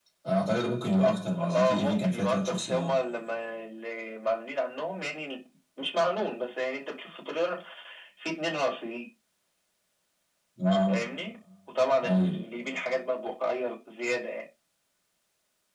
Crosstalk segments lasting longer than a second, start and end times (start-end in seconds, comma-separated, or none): 1.4-2.9